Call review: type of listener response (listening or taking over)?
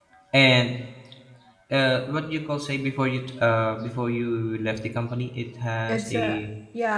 taking over